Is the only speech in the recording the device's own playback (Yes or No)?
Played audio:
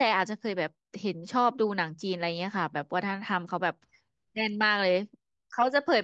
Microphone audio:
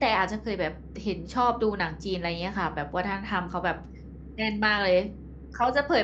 Yes